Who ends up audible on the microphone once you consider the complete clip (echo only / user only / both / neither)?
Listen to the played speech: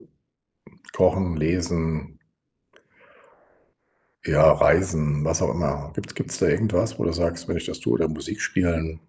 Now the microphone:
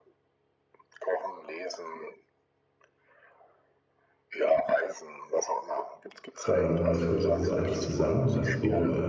both